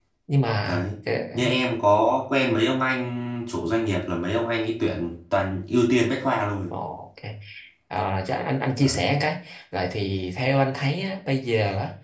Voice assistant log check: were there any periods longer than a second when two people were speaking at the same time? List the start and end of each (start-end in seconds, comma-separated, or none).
none